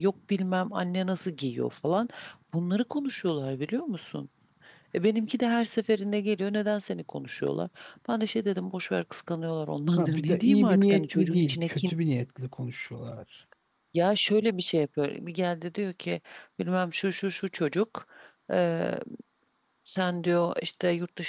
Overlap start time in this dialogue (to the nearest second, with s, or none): 10 s